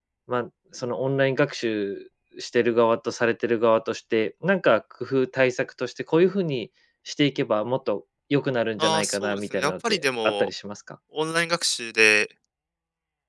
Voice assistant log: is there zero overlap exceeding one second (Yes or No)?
No